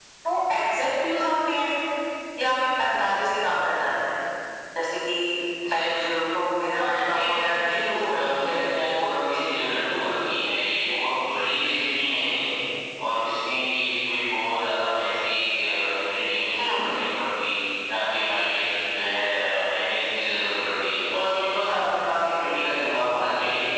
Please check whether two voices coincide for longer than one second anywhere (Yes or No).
Yes